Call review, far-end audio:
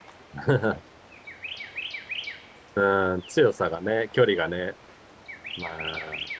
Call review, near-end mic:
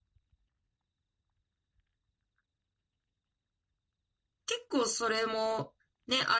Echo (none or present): none